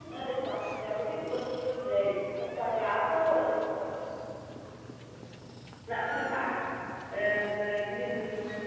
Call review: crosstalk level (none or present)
none